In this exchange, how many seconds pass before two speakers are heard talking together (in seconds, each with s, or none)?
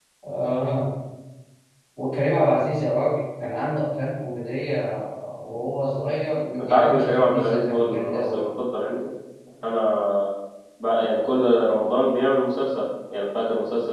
6.6 s